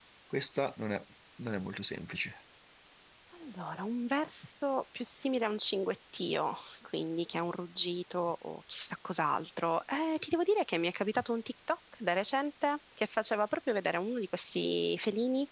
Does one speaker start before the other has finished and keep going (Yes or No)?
No